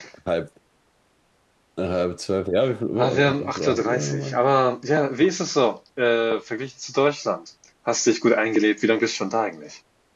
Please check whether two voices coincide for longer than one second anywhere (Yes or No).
Yes